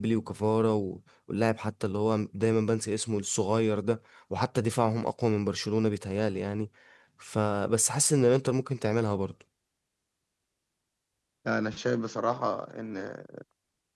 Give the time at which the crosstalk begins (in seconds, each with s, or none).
none